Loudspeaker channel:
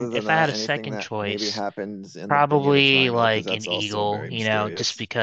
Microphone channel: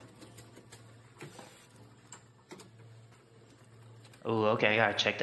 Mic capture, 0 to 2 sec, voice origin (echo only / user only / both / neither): neither